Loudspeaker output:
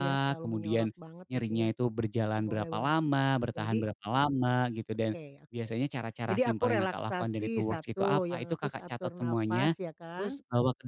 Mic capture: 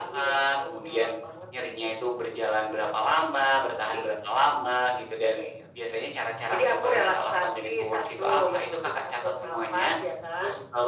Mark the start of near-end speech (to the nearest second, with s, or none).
none